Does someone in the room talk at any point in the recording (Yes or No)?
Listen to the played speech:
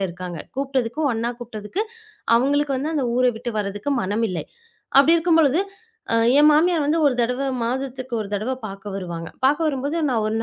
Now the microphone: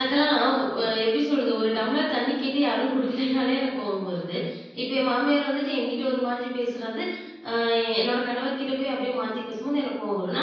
Yes